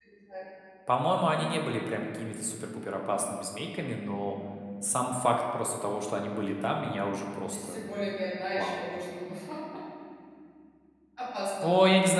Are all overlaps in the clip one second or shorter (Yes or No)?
Yes